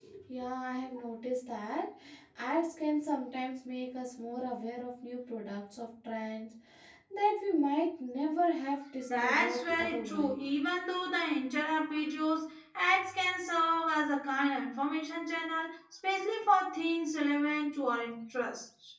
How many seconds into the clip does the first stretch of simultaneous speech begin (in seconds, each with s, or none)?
9.1 s